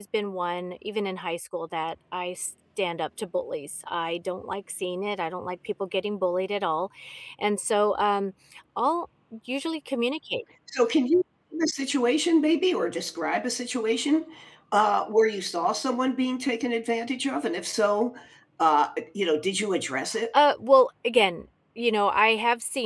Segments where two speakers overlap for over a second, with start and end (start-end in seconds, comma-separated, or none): none